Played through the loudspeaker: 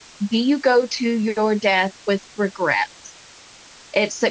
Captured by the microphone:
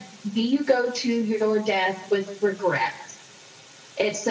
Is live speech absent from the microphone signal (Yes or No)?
Yes